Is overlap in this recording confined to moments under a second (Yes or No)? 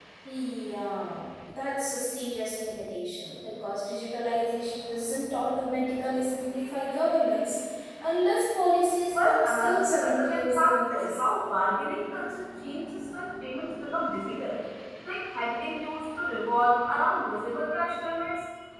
No